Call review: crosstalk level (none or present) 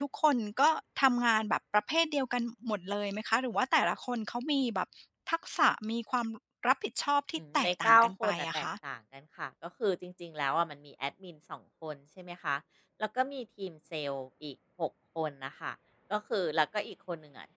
present